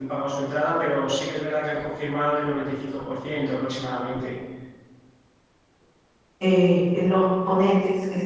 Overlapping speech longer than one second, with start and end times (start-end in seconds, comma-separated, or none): none